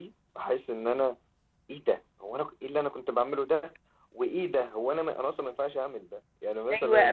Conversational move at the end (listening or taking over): taking over